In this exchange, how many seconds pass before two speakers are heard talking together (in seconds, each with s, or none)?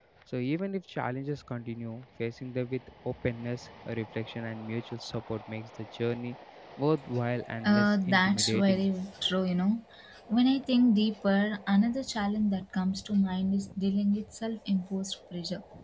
7.6 s